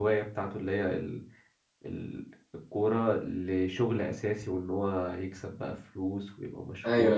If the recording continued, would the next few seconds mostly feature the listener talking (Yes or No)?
Yes